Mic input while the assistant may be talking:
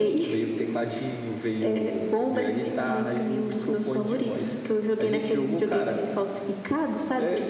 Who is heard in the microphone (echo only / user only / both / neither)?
echo only